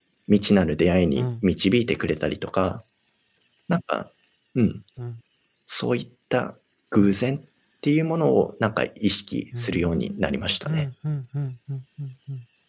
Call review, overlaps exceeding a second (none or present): present